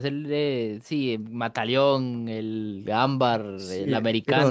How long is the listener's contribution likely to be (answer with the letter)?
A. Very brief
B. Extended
B